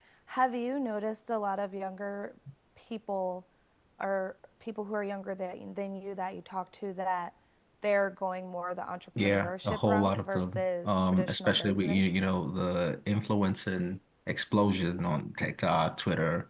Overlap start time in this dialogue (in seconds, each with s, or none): 9.2 s